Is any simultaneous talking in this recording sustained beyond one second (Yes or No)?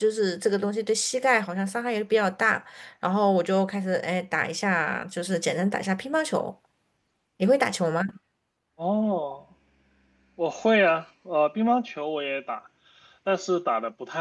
No